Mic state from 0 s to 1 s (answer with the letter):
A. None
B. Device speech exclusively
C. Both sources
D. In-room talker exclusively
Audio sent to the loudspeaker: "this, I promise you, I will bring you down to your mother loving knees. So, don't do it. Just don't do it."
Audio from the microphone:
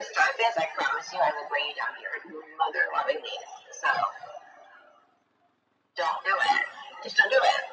B